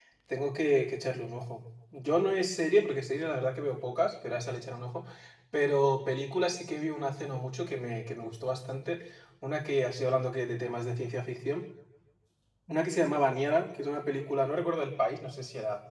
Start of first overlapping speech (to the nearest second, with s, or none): none